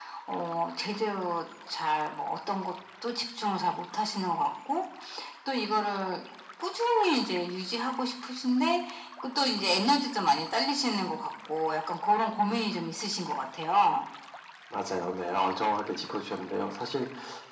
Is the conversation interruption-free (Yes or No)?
Yes